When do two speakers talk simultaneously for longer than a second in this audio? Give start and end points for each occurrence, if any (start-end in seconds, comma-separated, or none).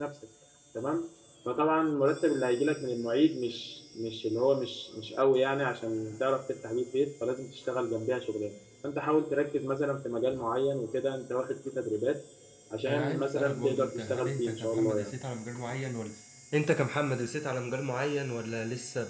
12.9-15.1